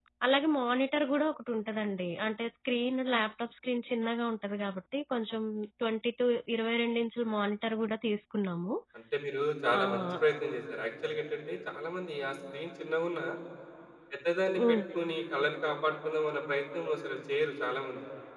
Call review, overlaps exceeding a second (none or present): none